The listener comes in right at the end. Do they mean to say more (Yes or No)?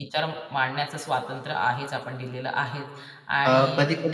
Yes